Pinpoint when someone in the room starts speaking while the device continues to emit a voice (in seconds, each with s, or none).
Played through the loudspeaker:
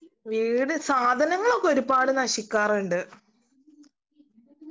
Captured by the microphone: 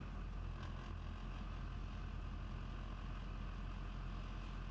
none